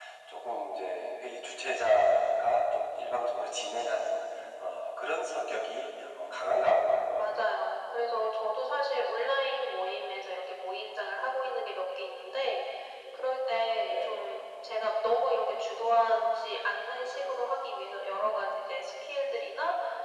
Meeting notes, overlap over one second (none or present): none